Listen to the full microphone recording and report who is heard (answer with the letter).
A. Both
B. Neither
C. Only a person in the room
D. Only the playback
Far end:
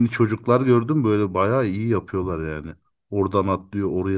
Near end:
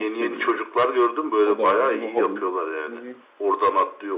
A